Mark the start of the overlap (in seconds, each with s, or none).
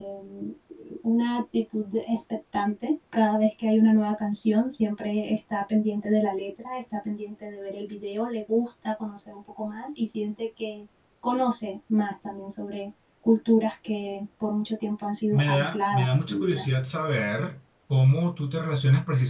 15.3 s